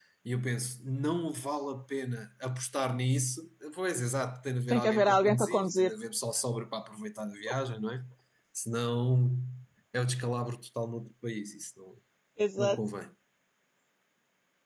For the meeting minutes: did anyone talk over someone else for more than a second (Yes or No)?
Yes